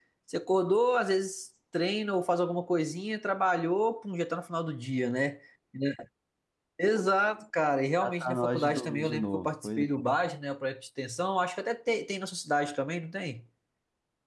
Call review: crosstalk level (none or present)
present